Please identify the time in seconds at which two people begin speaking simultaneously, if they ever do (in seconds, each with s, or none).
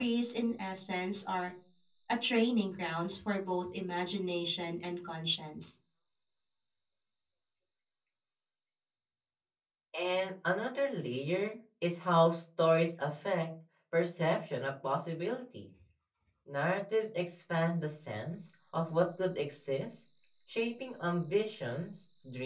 none